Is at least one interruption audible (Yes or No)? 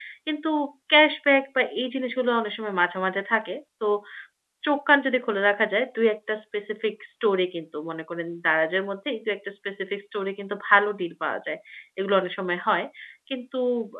No